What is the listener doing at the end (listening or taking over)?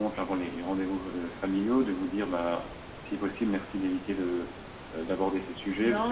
taking over